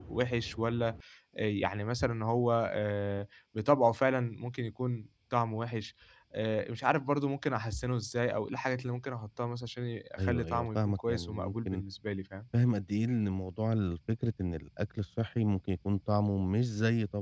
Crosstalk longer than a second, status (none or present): present